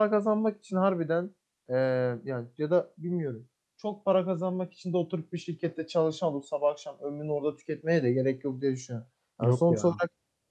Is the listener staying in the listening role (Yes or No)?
Yes